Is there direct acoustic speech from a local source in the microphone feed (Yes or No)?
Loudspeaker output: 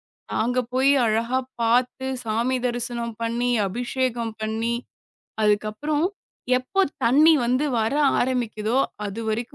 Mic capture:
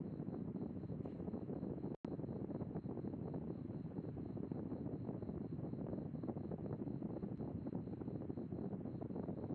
No